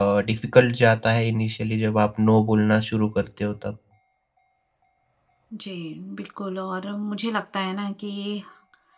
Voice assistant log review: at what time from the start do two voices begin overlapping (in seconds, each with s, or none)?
none